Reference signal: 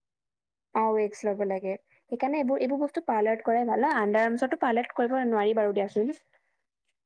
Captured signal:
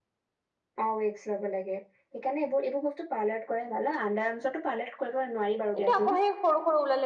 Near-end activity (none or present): present